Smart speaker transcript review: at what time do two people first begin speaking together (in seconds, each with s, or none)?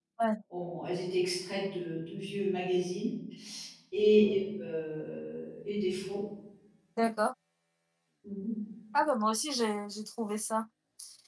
none